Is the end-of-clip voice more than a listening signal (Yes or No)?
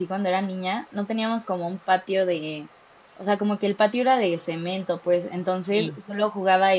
No